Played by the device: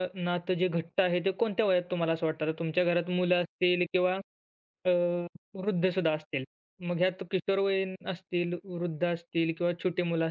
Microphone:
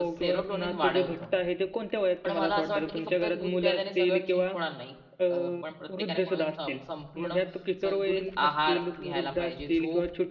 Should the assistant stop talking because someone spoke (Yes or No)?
Yes